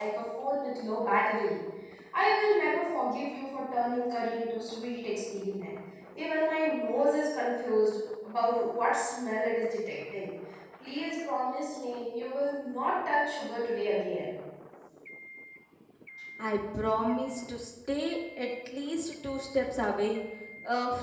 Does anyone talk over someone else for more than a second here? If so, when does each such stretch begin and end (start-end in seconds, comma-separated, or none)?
none